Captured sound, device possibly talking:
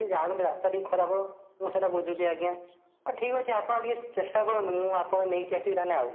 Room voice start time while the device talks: none

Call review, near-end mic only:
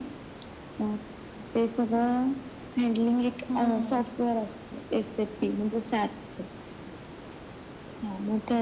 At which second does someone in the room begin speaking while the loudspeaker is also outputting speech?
3.5 s

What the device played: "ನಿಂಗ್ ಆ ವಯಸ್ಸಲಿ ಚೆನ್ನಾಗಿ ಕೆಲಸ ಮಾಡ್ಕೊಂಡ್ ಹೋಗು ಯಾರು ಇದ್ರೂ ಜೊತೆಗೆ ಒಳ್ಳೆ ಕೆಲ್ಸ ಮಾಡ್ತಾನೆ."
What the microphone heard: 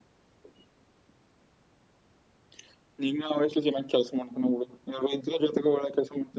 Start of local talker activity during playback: none

